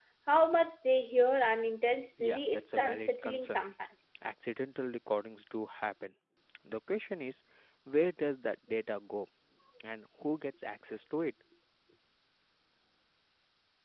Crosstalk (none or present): present